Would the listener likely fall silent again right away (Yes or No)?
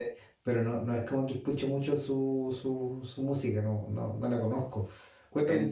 Yes